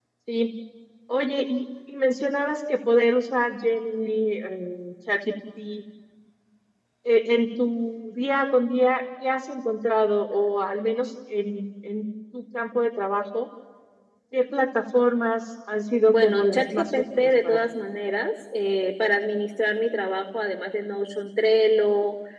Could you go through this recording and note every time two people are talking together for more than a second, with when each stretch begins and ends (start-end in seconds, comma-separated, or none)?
16.0-17.6